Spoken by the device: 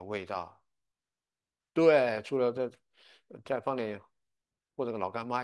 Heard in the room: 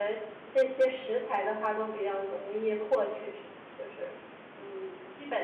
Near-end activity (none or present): present